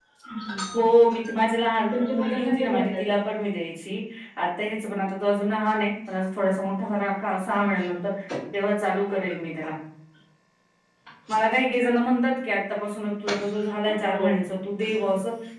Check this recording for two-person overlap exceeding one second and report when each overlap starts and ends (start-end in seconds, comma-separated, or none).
1.9-3.3